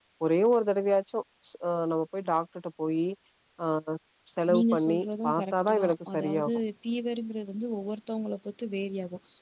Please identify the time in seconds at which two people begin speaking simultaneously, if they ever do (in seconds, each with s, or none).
4.5 s